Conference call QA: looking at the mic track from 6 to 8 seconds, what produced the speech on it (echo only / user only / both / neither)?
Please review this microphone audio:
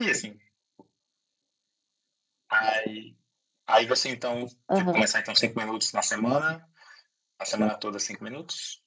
echo only